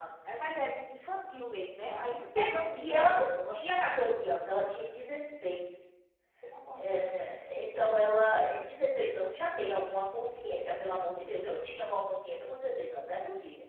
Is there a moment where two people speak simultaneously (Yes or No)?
Yes